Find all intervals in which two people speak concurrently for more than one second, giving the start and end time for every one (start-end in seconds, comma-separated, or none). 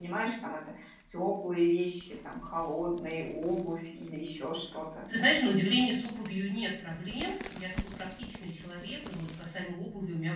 none